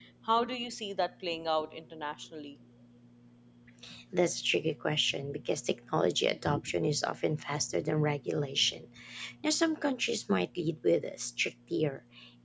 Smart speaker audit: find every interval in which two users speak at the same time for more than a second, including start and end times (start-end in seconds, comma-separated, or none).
none